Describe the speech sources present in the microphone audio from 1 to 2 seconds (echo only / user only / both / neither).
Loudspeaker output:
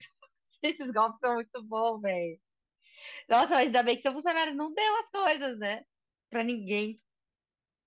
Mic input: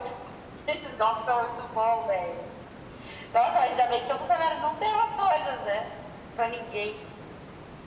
echo only